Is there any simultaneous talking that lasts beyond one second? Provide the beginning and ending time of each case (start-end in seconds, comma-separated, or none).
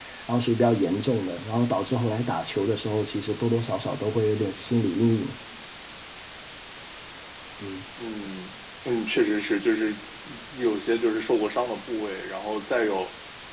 none